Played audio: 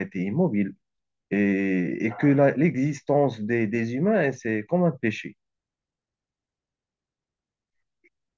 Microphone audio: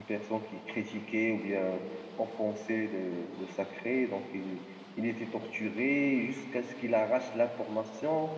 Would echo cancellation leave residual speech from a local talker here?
Yes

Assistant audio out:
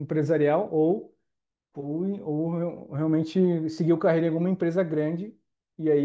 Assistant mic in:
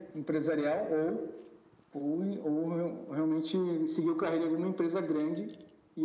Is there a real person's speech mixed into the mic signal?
No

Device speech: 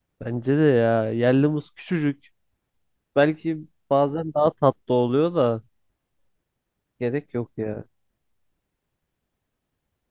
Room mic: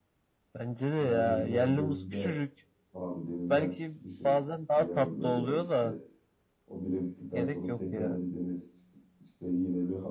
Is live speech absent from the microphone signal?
No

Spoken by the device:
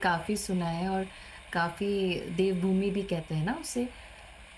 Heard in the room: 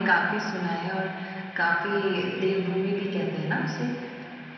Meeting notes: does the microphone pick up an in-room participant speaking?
No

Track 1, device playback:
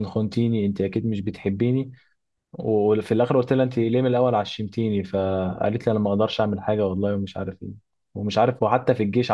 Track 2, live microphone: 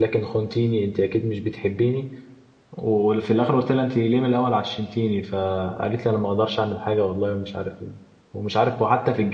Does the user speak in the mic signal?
No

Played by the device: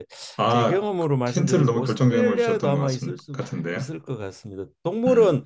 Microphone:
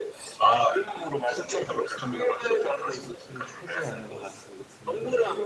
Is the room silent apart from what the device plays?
No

